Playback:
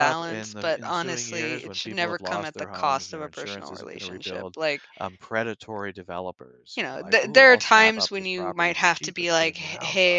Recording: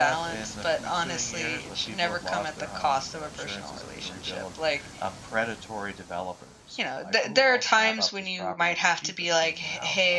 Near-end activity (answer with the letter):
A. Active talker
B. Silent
B